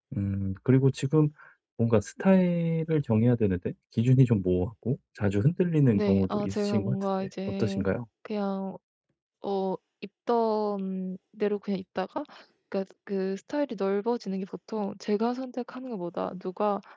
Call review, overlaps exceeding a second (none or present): present